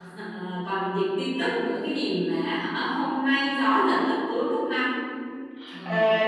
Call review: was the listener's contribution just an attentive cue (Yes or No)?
No